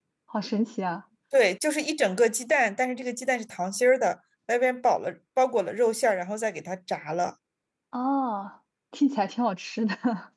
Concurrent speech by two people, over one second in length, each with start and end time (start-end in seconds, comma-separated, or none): none